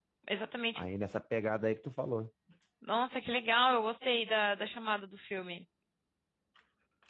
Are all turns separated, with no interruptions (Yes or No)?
Yes